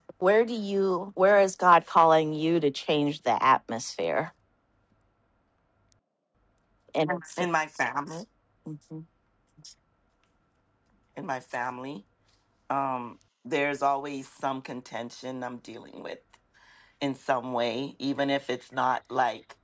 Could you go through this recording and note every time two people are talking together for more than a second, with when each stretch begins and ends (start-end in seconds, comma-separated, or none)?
none